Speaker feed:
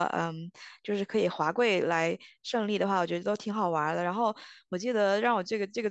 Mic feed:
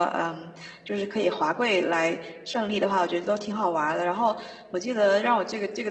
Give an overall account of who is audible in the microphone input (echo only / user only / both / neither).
echo only